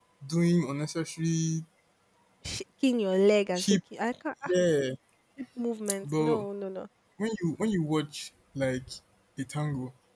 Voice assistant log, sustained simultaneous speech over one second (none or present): none